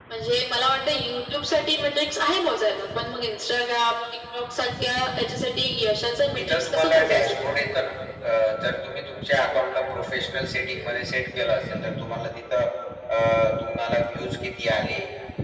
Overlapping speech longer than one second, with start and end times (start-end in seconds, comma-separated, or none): 6.4-7.6